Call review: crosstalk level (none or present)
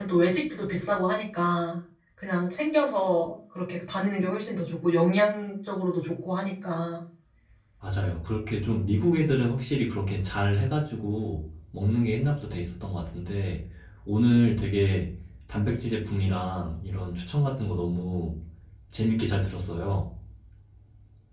none